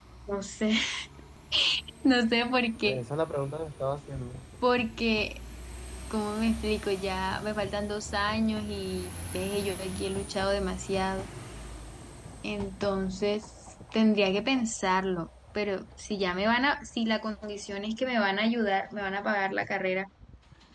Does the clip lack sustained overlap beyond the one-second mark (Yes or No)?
Yes